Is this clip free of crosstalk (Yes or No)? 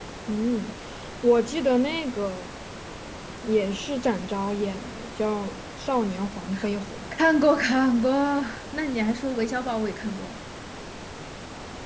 Yes